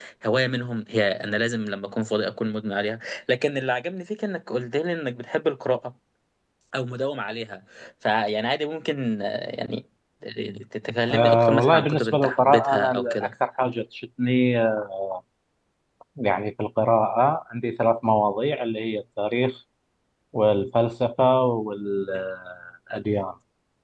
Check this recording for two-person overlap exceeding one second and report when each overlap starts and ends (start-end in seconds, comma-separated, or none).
11.1-13.3